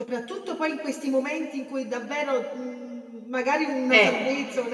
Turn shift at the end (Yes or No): No